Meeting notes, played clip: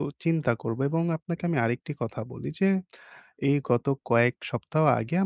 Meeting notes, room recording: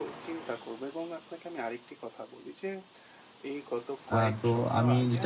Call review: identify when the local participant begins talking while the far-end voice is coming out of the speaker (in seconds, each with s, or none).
4.2 s